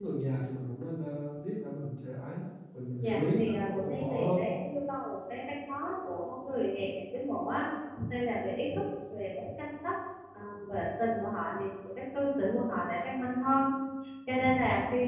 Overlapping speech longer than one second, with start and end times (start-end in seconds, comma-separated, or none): 3.0-4.4